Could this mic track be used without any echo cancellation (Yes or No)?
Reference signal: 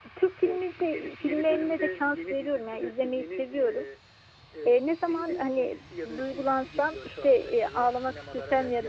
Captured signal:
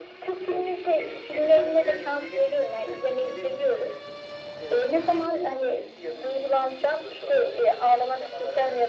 No